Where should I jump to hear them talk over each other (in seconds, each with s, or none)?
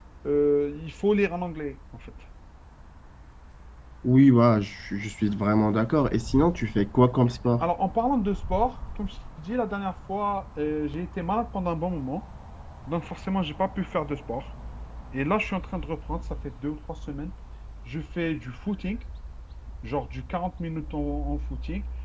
none